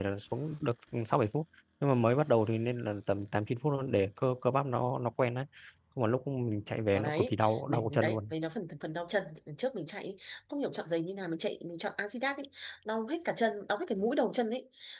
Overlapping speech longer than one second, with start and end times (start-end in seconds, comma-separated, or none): 6.9-8.3